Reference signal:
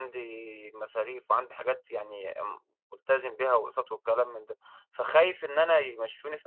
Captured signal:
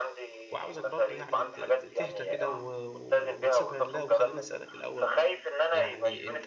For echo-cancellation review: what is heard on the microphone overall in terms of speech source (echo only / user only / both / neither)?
both